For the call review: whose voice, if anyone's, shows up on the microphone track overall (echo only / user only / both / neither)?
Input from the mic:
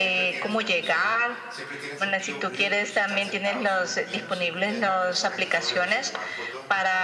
both